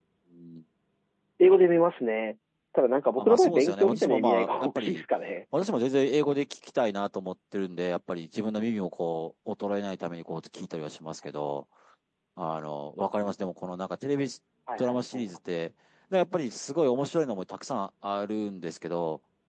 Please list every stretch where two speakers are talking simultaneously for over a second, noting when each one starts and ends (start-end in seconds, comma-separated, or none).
3.2-5.0